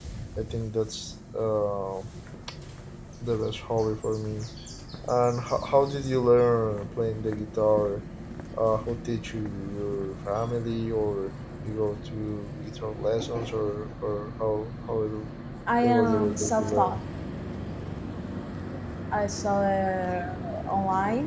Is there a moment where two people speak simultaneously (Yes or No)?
Yes